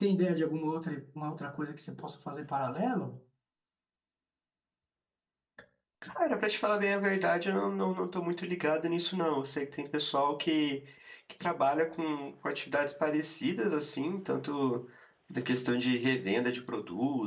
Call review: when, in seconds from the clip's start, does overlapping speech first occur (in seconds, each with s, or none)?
none